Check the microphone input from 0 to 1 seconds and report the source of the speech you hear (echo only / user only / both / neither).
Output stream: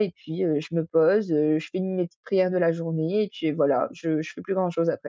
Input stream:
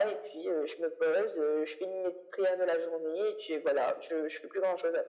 echo only